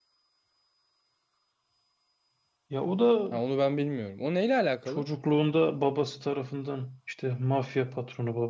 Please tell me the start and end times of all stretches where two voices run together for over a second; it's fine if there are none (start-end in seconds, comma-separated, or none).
none